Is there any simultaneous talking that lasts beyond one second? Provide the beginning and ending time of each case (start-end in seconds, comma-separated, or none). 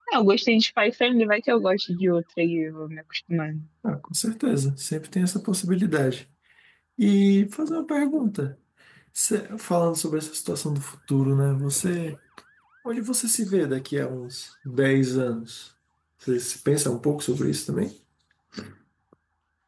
none